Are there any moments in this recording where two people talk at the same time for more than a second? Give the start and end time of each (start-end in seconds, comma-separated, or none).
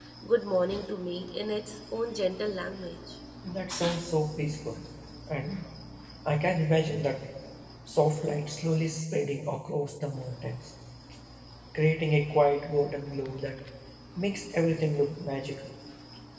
none